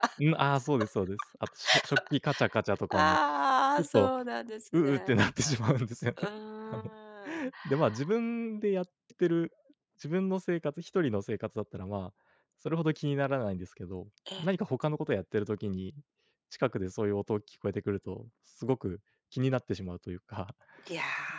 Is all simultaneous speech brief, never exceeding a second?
Yes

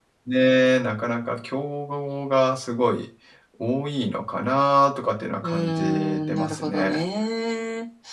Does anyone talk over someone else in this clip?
Yes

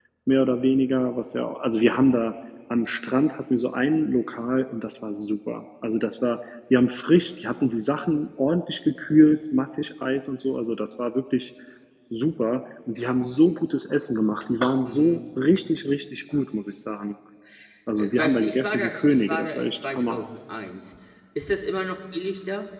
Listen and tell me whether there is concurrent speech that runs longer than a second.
Yes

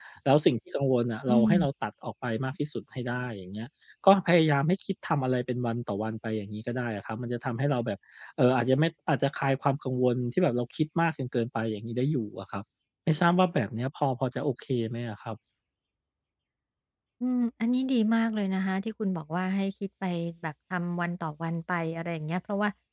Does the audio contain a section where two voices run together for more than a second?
No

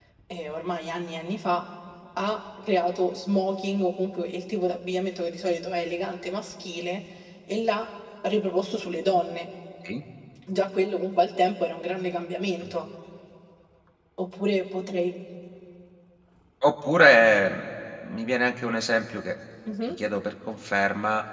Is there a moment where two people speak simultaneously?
No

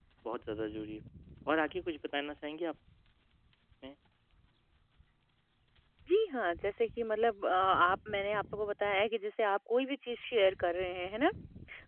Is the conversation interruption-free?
Yes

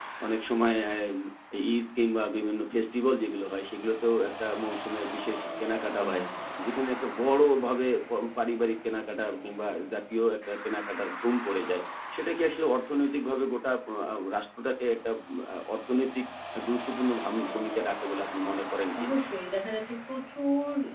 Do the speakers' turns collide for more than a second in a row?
No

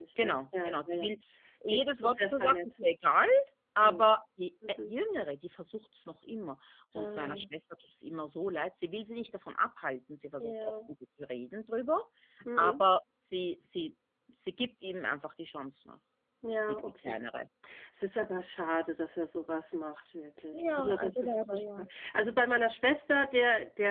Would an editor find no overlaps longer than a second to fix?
No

